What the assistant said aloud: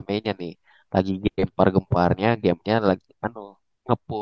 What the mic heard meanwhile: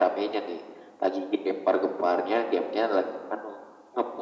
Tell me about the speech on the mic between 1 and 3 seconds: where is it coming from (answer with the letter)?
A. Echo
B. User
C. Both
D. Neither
A